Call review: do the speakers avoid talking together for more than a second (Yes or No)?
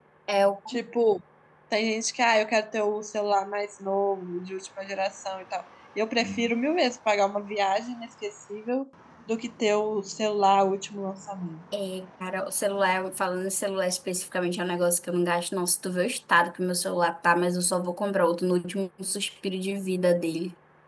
Yes